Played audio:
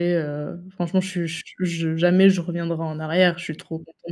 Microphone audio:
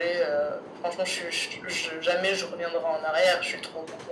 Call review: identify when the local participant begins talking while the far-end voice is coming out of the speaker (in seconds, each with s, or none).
none